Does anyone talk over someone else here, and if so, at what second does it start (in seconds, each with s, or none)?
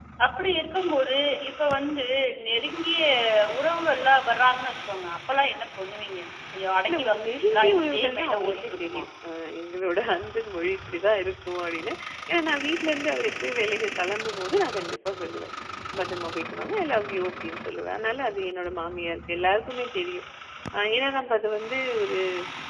6.9 s